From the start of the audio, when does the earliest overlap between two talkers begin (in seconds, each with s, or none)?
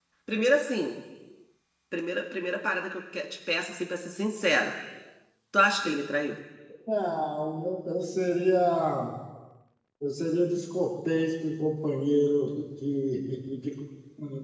none